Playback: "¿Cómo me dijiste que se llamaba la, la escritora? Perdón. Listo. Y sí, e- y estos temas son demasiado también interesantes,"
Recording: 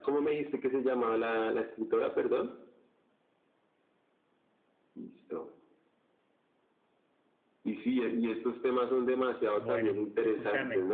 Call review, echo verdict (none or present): present